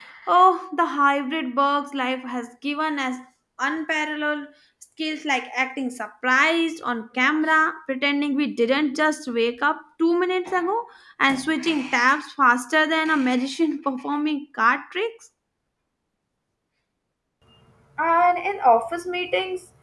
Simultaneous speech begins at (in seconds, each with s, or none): none